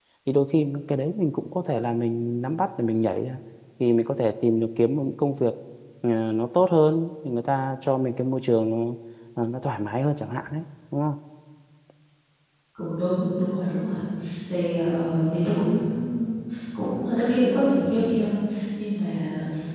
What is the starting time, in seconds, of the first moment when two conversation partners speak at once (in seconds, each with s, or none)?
none